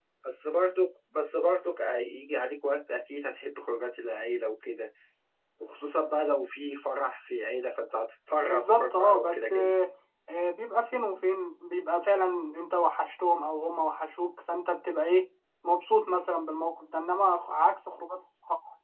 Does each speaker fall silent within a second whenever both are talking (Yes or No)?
No